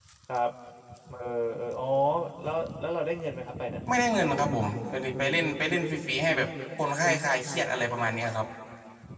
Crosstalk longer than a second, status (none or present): none